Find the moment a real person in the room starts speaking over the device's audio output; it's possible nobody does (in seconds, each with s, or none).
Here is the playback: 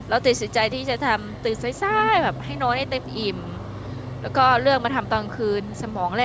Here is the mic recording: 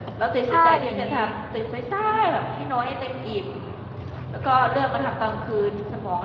0.5 s